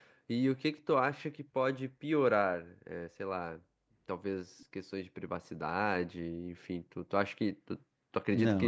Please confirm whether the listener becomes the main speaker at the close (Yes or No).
Yes